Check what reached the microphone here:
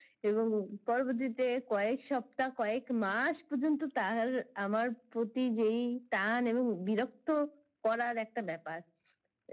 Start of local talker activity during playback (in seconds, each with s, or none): none